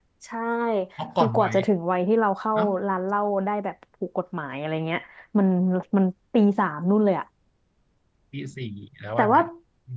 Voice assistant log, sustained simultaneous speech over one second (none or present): none